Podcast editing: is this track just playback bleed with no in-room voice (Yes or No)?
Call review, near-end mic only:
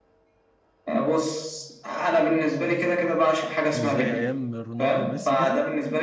No